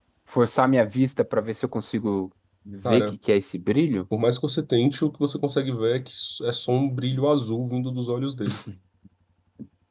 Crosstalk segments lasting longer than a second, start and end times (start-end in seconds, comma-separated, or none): none